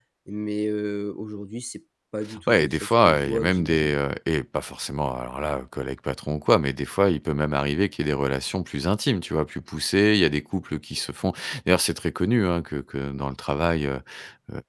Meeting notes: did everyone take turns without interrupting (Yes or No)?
No